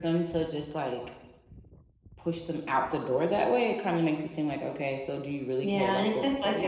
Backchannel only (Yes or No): No